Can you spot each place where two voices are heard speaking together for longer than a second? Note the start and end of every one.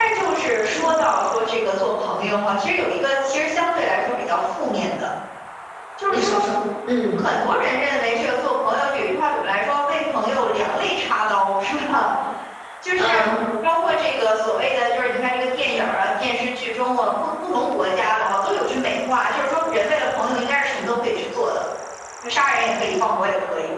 none

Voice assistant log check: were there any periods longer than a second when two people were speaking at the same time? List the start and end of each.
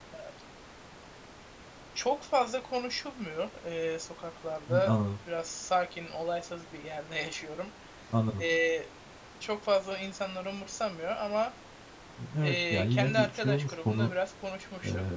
12.4-14.1

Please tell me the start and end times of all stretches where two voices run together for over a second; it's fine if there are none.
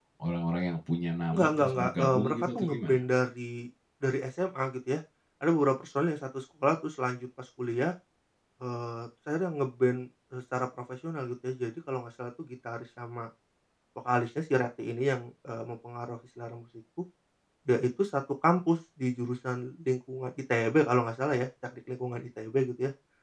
1.3-3.0

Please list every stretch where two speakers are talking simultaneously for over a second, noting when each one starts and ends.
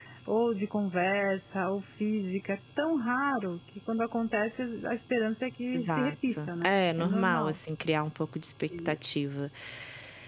5.7-7.6

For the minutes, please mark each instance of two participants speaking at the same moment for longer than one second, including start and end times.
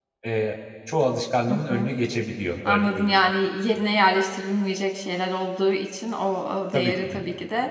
none

